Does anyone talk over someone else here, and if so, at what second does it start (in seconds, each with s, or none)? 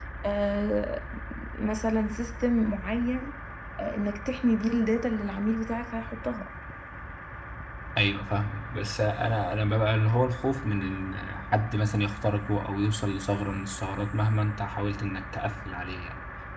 none